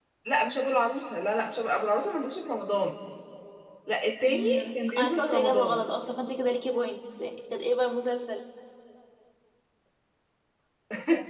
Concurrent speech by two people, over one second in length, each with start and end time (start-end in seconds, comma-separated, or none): 4.2-5.8